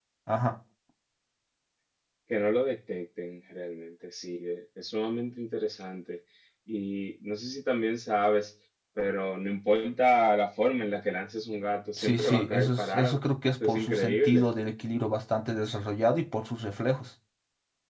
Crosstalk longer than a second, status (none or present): present